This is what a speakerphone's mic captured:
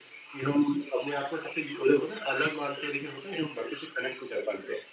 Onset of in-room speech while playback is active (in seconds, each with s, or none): none